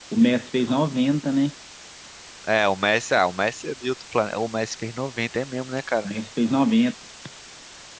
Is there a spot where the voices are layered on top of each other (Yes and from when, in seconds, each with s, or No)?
No